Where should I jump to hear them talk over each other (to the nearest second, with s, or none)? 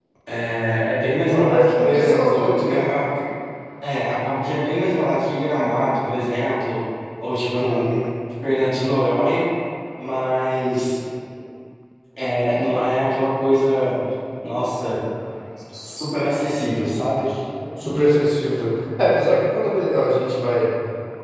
1 s